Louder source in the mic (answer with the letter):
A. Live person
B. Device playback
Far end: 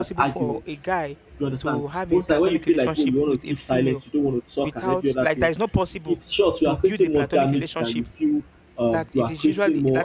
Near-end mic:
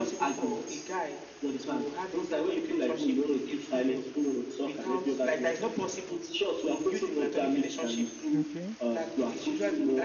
B